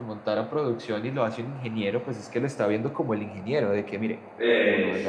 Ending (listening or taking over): listening